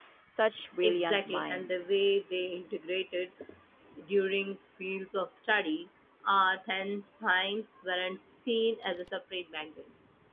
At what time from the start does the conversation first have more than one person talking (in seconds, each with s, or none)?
0.8 s